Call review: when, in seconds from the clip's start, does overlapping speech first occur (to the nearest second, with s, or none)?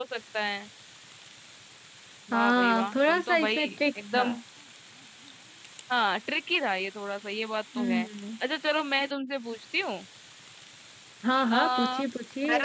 2 s